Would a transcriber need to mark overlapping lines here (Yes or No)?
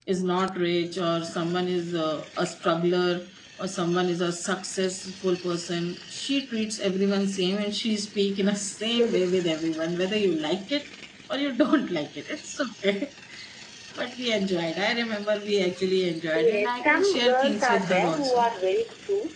Yes